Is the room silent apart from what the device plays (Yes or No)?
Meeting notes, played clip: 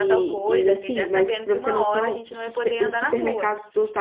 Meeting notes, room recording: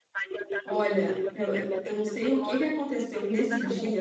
No